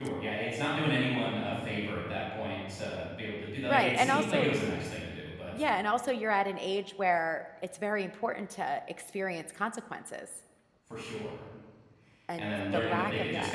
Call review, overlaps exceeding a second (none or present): present